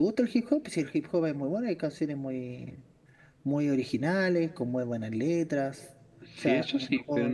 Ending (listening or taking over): taking over